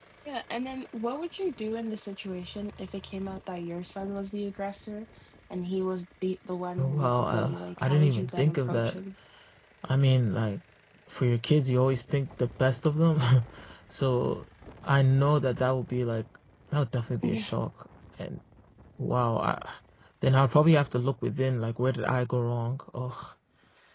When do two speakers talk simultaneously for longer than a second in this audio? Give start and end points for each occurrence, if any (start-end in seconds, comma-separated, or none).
6.8-8.9